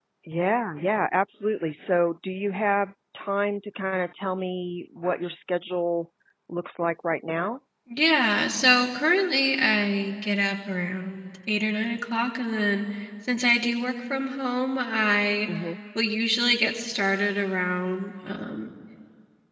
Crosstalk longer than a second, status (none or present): none